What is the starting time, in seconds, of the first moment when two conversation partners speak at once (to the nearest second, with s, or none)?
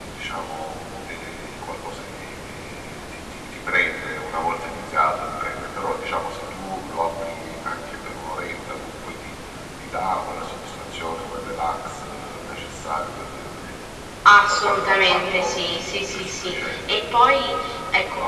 14 s